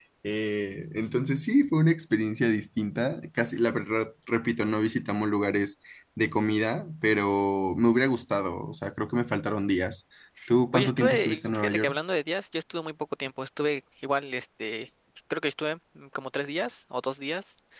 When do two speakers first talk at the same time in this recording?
10.7 s

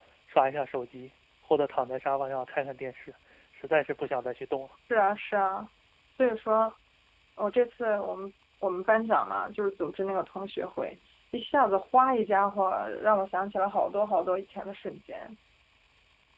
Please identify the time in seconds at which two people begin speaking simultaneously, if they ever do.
none

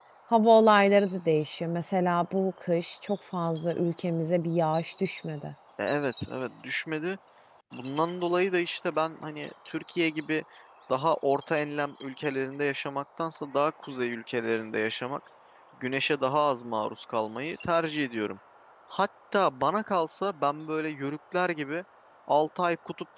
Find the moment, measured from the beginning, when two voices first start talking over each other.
none

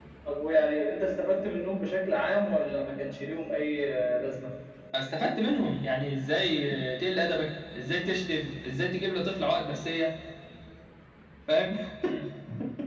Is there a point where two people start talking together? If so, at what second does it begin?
none

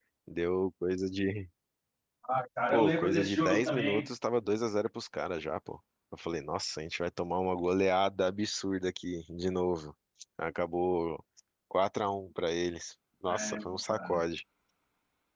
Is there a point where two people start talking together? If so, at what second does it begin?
2.7 s

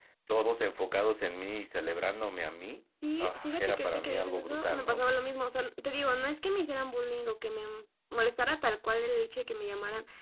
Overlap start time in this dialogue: 3.0 s

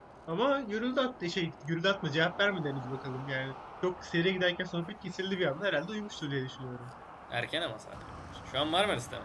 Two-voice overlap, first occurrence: none

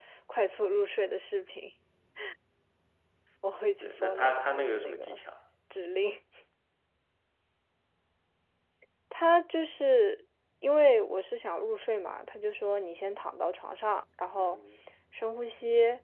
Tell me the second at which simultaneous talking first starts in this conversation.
3.8 s

